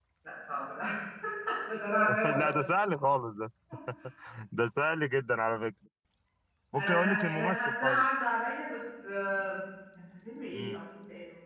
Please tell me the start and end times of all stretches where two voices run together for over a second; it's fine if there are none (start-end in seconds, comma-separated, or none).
6.8-8.1